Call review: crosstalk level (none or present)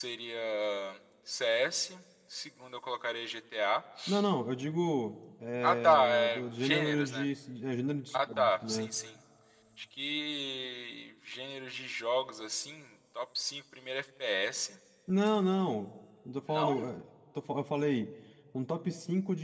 present